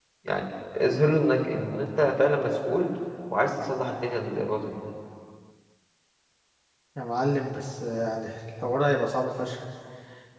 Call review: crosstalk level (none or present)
none